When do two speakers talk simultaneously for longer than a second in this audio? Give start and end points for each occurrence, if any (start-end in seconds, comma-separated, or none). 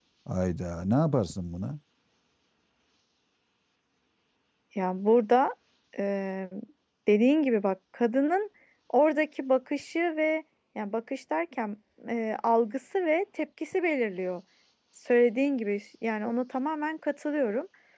none